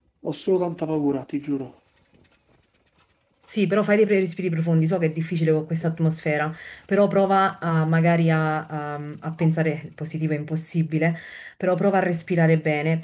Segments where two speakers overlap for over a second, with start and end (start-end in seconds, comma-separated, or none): none